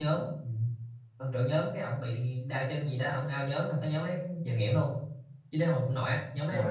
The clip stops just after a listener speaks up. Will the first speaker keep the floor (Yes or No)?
Yes